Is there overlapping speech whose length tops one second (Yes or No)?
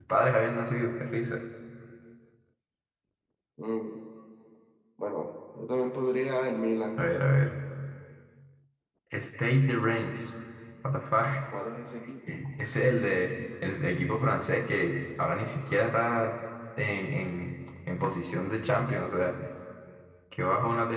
No